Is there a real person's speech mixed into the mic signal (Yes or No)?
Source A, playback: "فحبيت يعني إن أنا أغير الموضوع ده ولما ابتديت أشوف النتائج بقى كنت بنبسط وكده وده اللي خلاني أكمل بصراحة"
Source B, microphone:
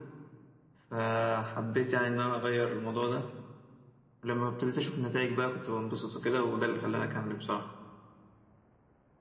No